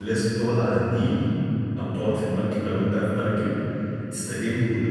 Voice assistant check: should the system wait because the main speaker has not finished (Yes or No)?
No